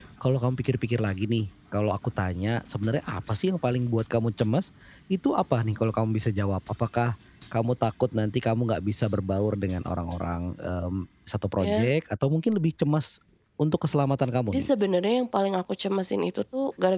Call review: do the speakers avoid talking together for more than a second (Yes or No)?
Yes